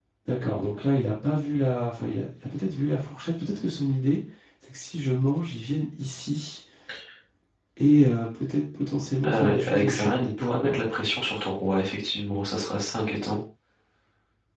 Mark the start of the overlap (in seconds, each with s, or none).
9.2 s